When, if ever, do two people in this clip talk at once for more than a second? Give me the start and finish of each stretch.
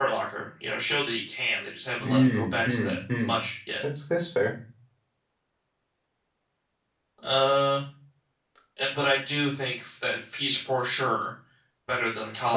2.0-3.3

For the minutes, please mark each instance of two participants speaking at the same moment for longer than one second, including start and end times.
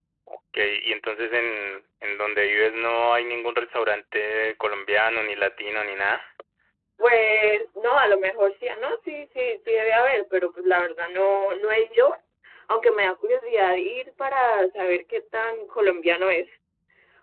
none

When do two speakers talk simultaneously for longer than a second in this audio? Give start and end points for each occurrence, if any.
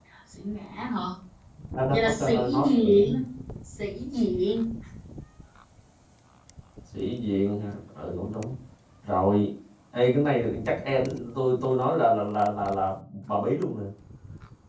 1.9-3.2

